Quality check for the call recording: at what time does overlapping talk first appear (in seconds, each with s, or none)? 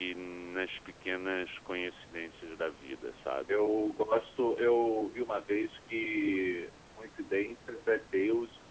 none